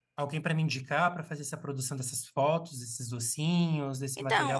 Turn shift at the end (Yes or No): Yes